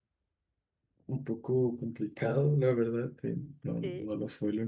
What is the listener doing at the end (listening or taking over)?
listening